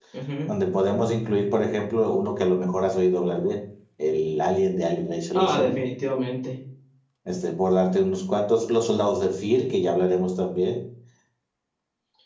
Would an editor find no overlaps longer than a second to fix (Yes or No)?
Yes